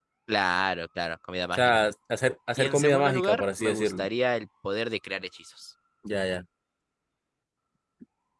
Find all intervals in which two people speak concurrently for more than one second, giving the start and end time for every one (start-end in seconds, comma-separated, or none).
2.6-4.0